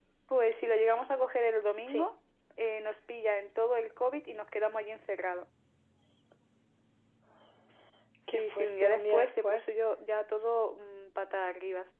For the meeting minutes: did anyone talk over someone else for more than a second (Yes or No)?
Yes